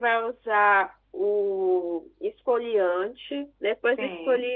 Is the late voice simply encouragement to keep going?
Yes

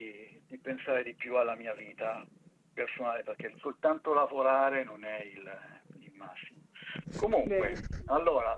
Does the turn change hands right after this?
No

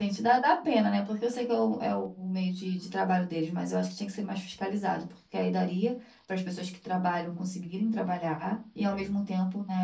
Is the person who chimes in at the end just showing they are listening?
Yes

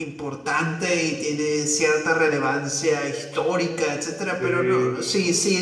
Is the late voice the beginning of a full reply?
No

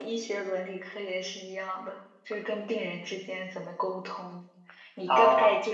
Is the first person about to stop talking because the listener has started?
No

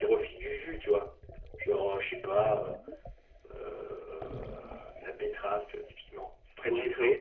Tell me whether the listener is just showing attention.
No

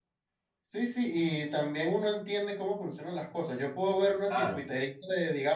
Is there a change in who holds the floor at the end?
No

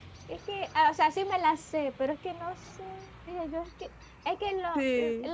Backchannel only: Yes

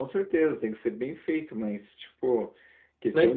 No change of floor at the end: No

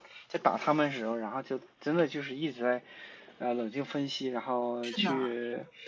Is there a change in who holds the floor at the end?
No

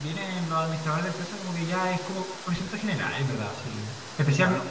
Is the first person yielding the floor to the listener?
No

